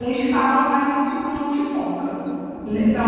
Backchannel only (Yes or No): Yes